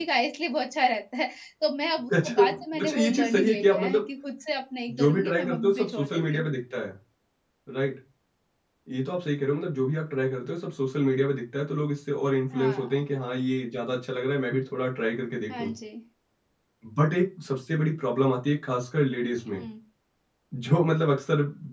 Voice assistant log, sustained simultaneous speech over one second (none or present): present